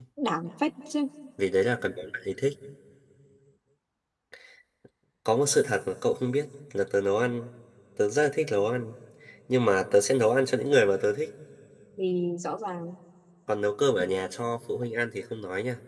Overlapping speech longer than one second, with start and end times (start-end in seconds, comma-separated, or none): none